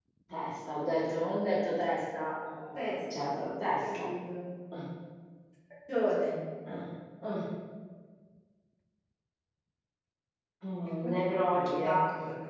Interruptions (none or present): present